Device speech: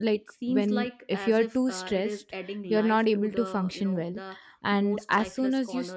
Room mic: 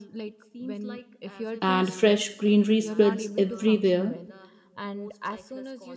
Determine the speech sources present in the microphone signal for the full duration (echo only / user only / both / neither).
both